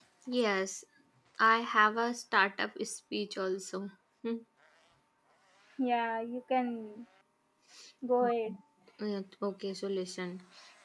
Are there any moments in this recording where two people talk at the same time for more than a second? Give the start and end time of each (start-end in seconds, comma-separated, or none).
none